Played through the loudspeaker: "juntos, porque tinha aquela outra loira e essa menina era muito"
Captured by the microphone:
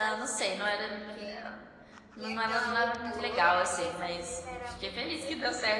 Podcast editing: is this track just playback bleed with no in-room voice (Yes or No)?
No